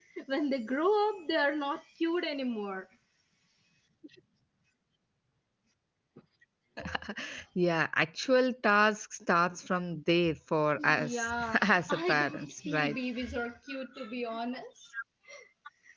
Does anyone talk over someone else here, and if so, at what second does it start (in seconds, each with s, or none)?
10.8 s